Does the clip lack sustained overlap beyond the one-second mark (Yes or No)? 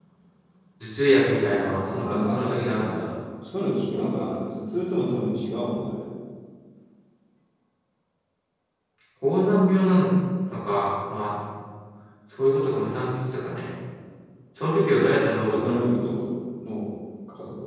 No